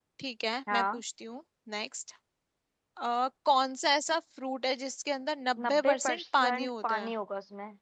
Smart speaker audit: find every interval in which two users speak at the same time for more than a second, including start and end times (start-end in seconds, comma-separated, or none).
5.6-7.1